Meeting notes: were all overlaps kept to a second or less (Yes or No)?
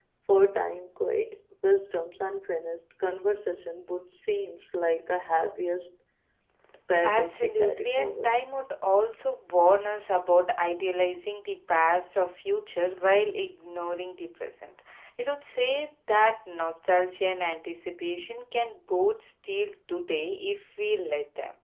No